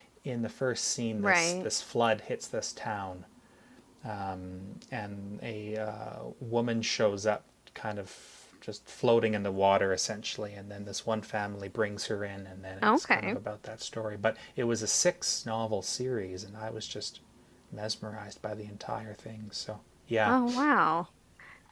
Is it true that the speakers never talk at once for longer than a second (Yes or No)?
Yes